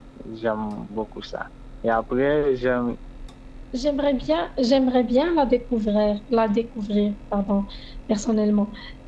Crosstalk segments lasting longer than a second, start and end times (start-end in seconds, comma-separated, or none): none